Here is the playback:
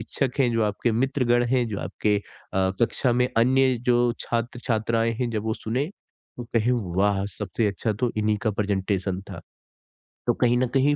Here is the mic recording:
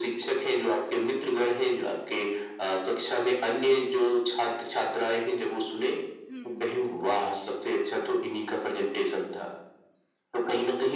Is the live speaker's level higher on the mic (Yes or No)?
No